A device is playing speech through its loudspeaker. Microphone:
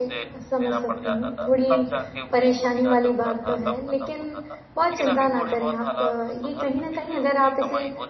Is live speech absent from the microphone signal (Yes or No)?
No